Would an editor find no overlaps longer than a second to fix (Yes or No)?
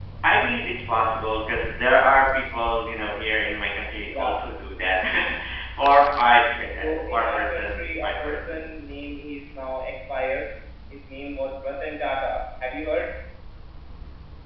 No